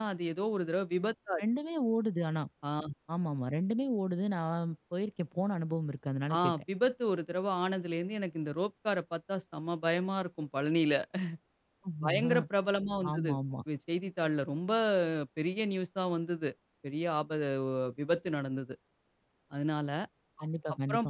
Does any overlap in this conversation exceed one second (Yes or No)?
No